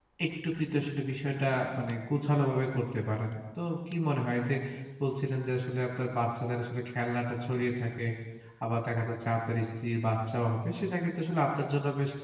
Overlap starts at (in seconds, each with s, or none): none